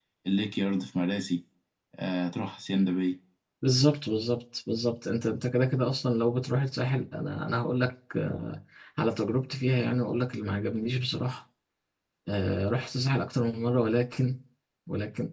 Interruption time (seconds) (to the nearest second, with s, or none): none